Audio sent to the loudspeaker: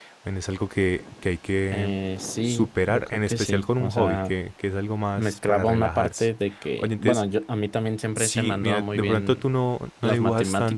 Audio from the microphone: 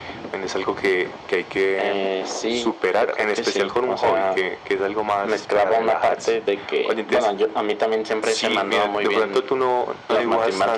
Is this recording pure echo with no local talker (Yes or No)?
Yes